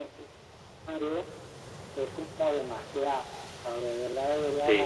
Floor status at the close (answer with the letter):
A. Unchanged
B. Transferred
B